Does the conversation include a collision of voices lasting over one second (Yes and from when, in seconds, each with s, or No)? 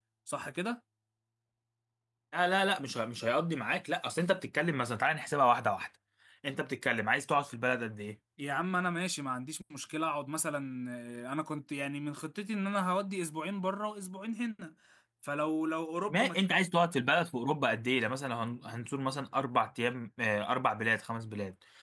No